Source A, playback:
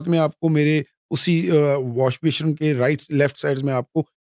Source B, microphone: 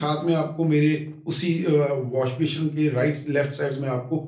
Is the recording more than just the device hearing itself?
No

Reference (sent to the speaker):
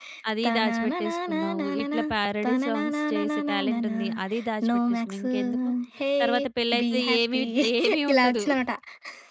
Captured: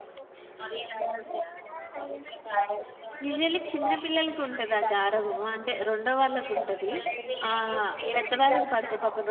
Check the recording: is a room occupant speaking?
Yes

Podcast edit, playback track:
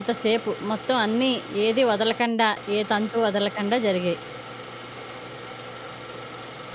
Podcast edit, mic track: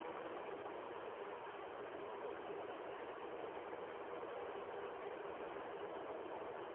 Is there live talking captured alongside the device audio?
No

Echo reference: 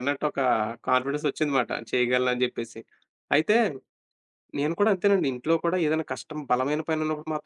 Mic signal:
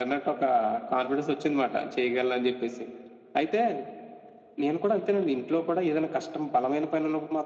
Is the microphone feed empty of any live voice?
Yes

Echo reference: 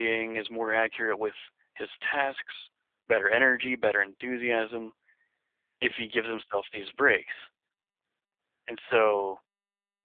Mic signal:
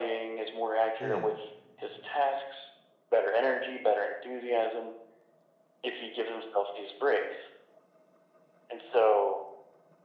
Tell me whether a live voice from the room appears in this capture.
Yes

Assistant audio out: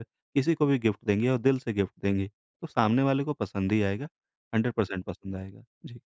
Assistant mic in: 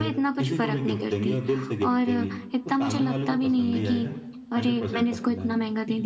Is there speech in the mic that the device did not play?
Yes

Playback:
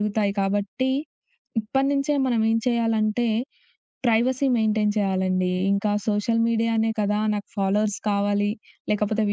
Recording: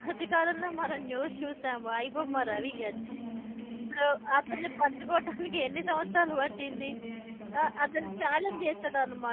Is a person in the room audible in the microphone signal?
Yes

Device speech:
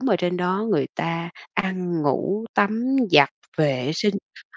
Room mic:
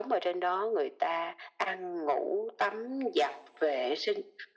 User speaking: No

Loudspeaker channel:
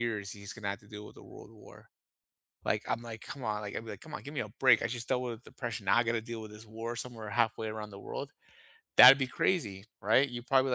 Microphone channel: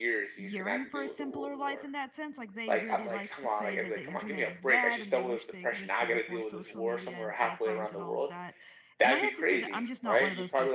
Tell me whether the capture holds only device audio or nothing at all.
No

